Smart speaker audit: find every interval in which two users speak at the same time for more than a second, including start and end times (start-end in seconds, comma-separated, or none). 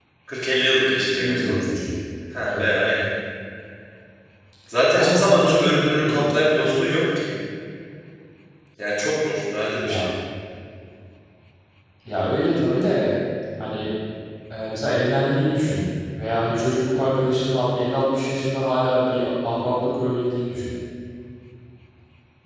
4.9-6.2